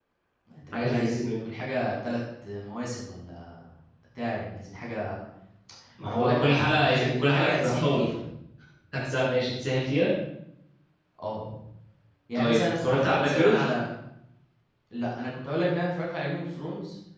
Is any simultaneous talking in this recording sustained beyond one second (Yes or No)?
Yes